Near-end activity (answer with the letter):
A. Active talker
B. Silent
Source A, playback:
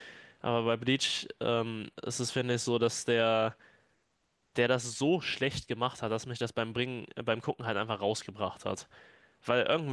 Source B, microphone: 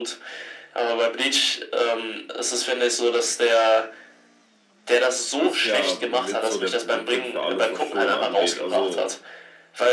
A